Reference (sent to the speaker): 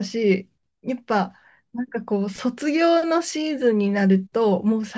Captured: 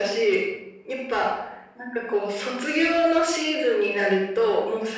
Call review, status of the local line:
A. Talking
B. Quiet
B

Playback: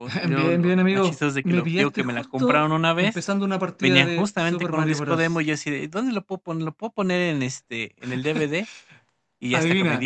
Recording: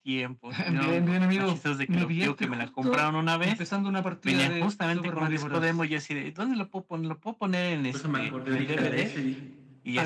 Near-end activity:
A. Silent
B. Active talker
B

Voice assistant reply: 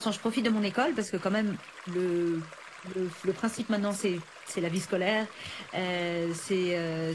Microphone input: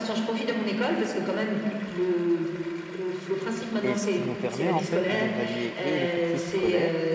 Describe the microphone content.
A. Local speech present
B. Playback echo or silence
A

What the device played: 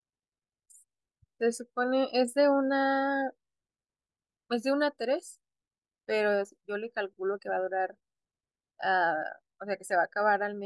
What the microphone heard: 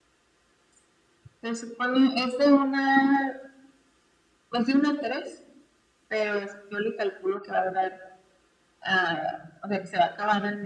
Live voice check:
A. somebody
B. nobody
B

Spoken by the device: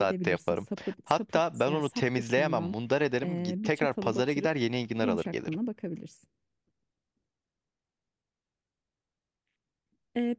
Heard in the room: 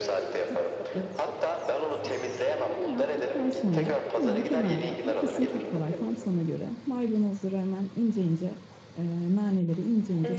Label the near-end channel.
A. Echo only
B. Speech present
B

